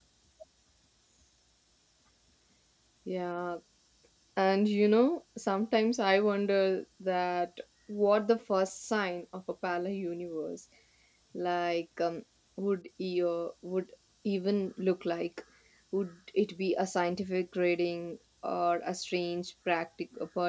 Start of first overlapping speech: none

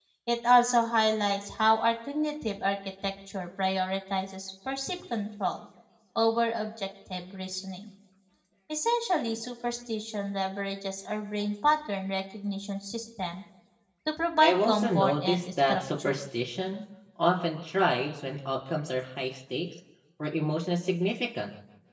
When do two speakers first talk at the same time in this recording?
14 s

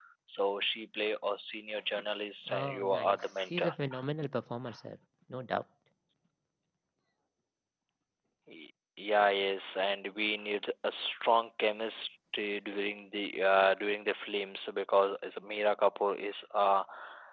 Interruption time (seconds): 2 s

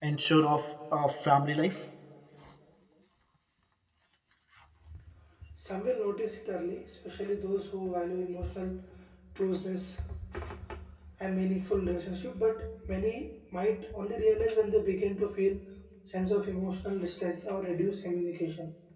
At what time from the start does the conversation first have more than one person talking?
none

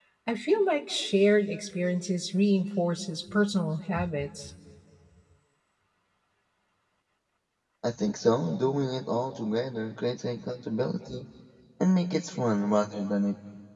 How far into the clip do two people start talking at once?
none

